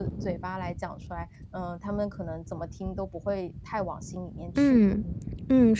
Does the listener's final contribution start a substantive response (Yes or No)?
Yes